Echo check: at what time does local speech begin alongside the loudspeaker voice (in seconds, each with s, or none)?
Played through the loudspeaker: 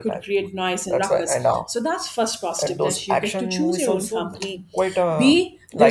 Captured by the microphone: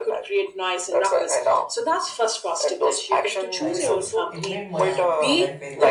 3.6 s